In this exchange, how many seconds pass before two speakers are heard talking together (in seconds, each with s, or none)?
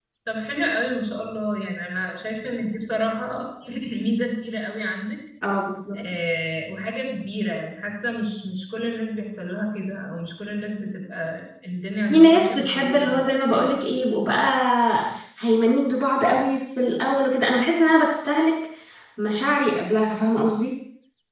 12.1 s